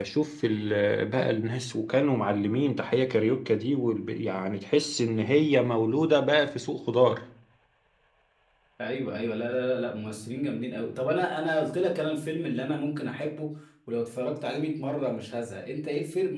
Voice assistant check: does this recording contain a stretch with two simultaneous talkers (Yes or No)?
No